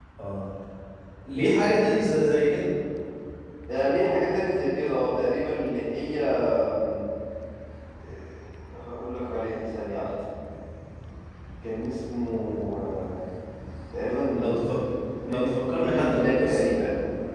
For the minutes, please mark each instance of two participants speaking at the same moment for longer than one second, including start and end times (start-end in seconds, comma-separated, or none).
15.2-16.7